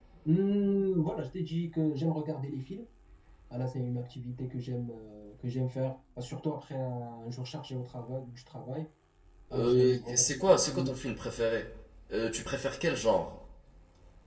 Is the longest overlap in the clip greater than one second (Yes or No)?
Yes